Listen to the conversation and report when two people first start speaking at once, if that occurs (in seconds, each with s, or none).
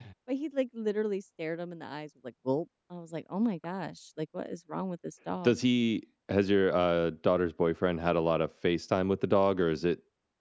none